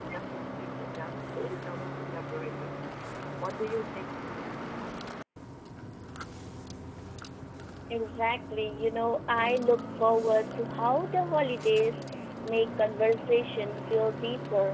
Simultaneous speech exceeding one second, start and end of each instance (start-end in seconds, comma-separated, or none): none